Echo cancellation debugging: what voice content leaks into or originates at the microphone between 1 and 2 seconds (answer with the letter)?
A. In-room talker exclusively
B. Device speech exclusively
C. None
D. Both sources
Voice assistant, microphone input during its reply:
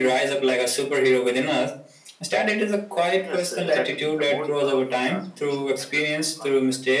B